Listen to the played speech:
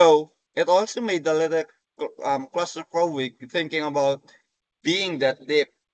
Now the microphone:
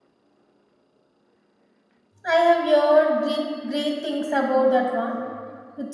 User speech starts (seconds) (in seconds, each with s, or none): 2.3 s